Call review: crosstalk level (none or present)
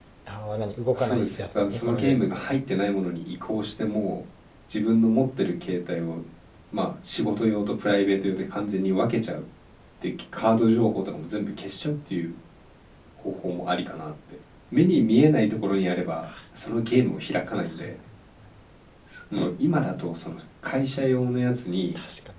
present